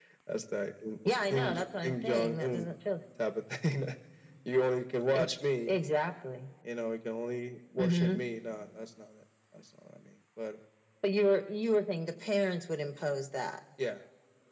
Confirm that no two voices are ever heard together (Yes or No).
No